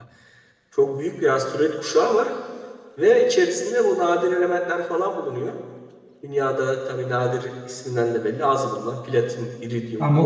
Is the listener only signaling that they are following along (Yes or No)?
No